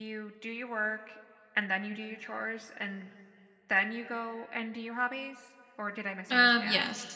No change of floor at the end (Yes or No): No